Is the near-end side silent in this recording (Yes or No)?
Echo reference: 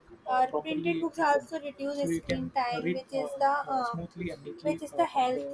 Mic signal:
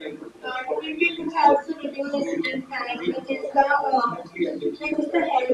Yes